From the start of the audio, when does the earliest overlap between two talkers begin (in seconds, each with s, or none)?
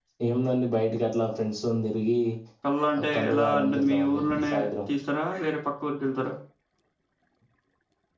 3.1 s